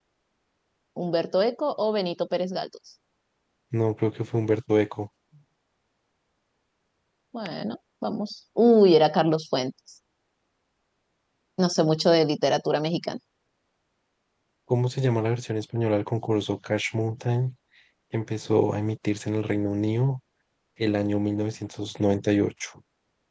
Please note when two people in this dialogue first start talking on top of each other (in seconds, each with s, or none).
none